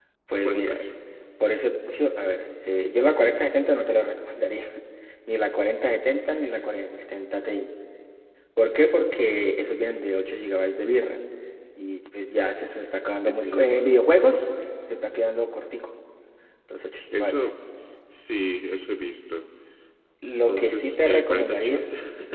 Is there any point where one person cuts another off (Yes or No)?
Yes